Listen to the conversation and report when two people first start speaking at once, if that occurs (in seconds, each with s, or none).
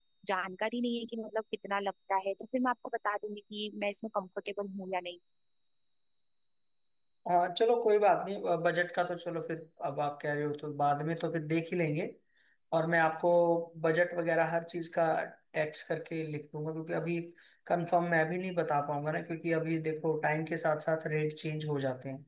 none